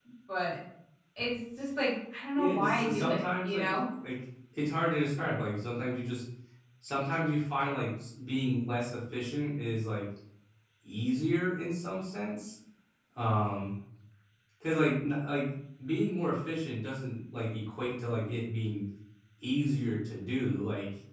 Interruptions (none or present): present